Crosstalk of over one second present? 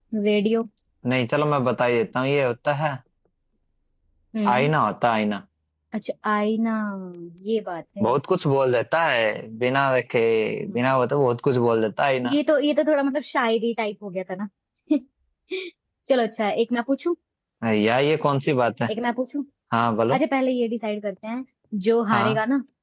No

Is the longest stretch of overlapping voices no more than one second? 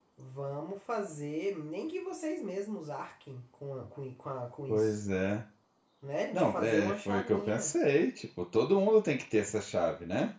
No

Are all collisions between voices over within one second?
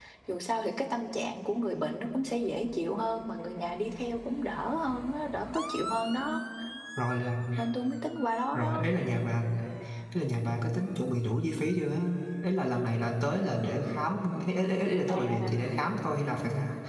Yes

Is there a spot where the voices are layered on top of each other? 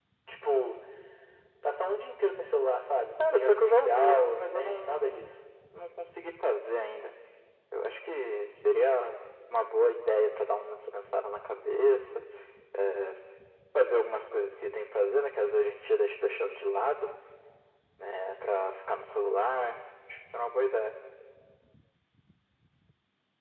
Yes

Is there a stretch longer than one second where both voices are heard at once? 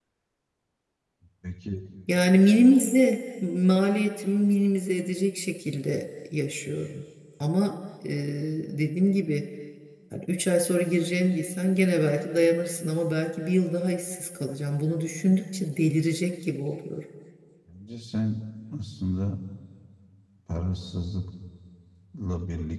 No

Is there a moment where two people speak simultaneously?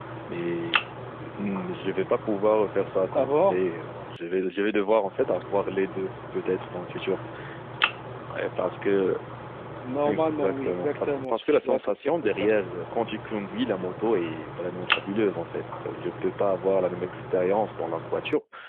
Yes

